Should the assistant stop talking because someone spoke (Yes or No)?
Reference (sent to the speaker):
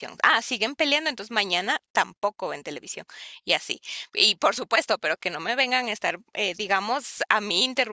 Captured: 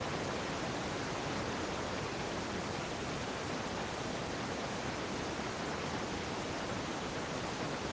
No